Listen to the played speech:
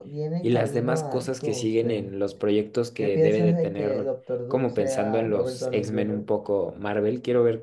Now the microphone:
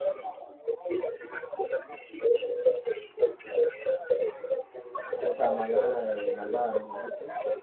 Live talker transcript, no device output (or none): o sea, mala de malvada, mejor dicho,